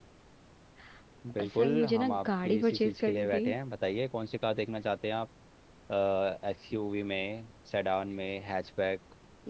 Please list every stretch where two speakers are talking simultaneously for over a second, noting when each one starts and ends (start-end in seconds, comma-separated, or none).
1.6-3.4